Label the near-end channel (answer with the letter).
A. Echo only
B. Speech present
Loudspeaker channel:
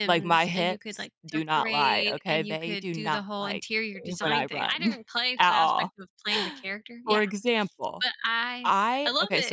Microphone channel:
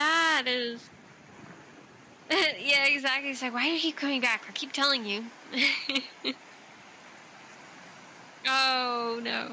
B